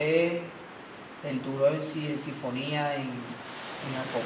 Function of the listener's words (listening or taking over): listening